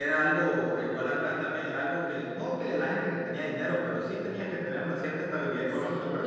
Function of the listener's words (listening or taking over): taking over